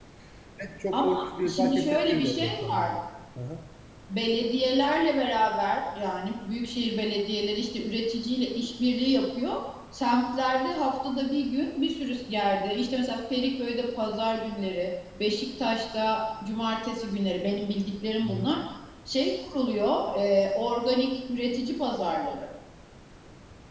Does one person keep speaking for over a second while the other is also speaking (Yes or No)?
Yes